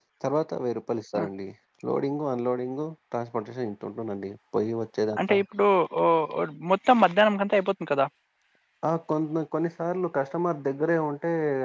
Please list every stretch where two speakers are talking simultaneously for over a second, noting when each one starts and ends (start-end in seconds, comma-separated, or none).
none